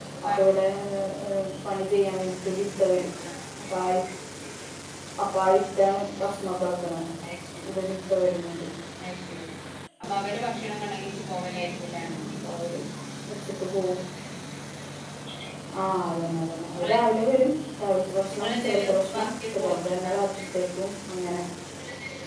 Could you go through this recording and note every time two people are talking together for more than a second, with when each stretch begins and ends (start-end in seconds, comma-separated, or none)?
18.3-20.1